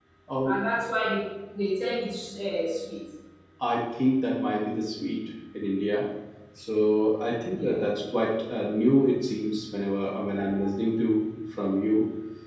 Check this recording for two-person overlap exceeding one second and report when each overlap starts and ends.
none

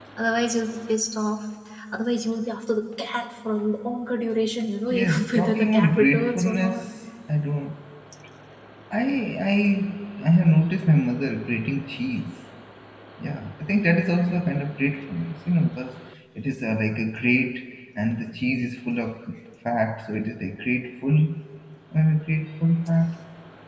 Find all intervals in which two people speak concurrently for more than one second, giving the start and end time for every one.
4.9-6.8

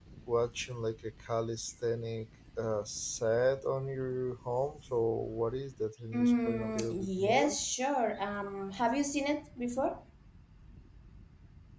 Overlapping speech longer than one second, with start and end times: 6.1-7.6

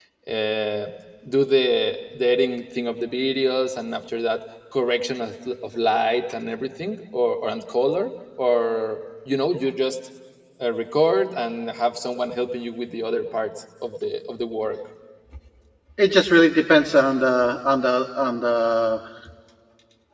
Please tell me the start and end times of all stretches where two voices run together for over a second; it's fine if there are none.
none

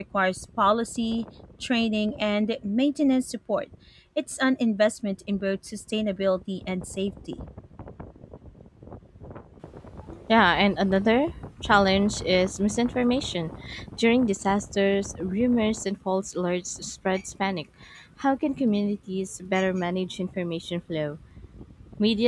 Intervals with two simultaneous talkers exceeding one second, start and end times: none

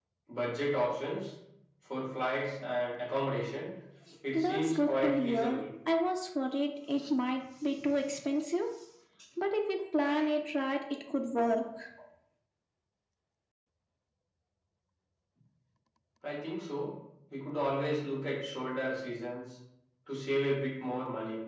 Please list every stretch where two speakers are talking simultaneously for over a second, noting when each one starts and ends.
4.3-5.6

